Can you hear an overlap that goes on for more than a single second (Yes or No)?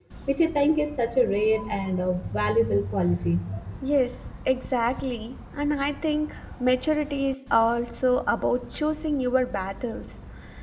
No